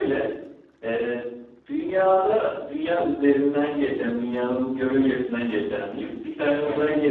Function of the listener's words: listening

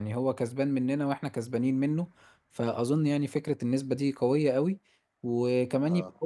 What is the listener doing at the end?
listening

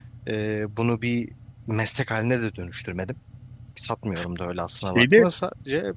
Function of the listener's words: listening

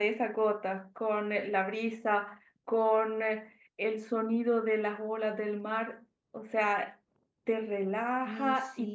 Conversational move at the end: listening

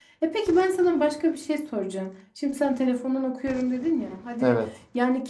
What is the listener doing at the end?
listening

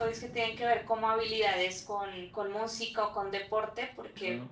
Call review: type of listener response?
listening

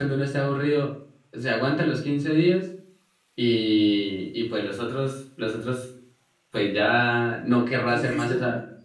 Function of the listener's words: listening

